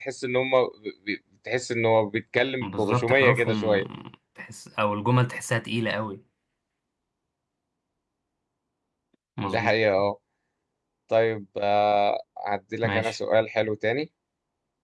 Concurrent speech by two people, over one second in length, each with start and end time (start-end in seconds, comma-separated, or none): 2.6-3.8